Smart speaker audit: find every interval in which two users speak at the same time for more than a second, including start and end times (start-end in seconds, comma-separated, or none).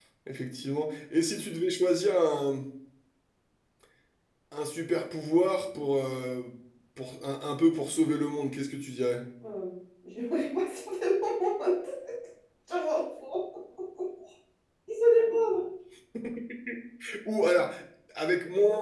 none